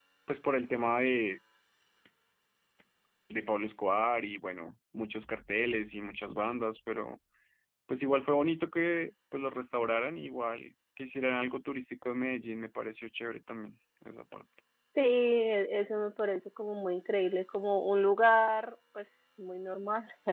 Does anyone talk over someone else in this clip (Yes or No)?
No